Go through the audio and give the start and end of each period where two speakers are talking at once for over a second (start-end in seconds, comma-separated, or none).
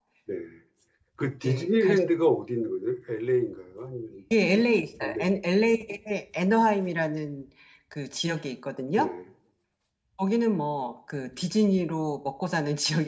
none